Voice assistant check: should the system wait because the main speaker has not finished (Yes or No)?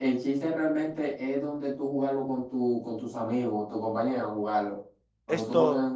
Yes